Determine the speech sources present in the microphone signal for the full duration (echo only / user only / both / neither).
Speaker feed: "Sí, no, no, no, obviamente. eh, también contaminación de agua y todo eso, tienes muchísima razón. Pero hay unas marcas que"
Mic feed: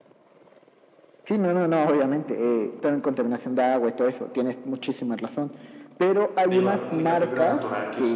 both